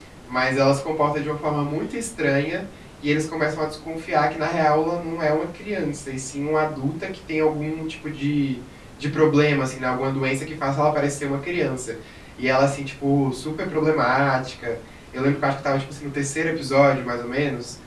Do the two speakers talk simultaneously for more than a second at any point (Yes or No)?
No